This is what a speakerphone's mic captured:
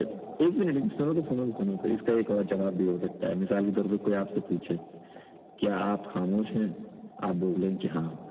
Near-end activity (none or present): none